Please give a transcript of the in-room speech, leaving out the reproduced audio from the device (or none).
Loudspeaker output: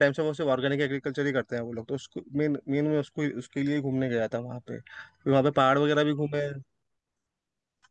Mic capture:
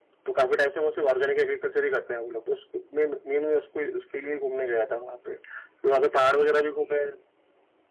none